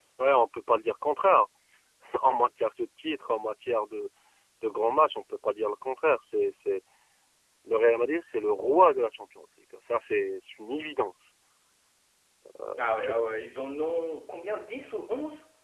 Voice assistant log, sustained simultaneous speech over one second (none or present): none